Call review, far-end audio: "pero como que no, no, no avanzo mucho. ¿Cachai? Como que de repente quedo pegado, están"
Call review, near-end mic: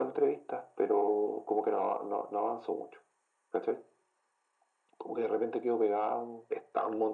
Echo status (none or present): present